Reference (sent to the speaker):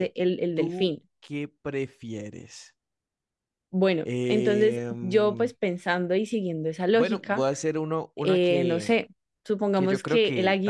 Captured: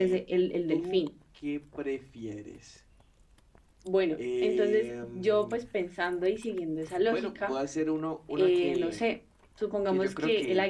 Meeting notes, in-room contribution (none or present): none